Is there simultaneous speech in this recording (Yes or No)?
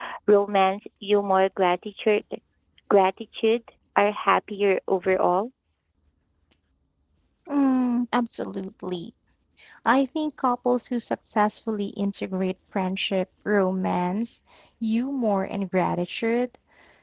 No